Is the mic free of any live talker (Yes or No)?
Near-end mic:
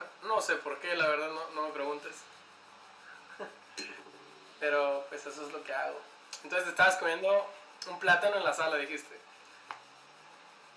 Yes